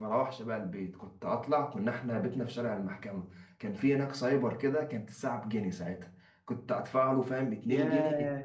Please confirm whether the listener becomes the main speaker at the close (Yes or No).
No